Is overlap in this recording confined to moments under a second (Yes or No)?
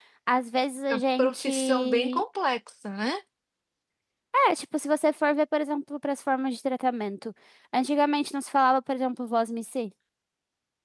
No